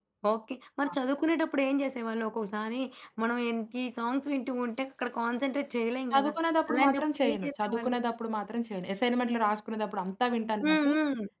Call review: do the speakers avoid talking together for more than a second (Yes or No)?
No